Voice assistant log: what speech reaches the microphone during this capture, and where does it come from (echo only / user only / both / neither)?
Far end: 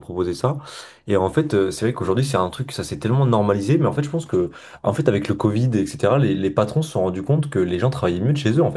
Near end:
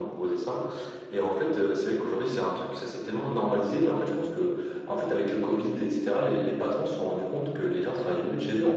echo only